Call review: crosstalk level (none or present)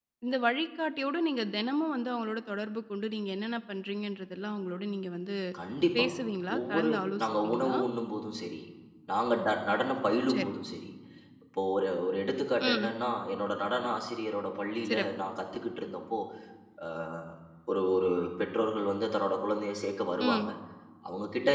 present